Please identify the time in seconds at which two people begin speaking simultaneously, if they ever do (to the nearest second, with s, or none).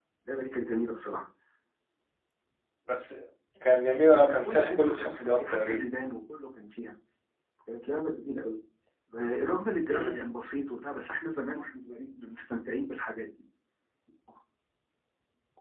4 s